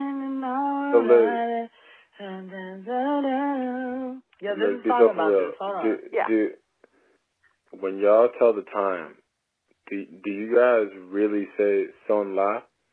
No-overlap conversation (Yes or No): No